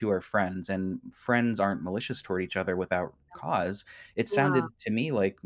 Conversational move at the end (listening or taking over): listening